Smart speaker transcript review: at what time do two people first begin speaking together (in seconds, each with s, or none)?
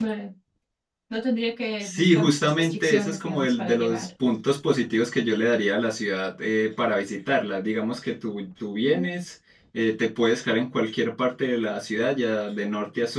1.8 s